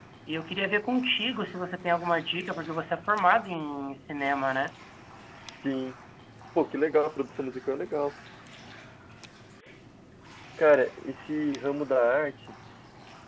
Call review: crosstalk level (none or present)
none